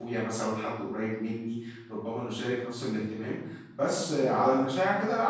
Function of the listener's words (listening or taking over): listening